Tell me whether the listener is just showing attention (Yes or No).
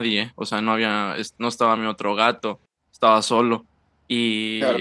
No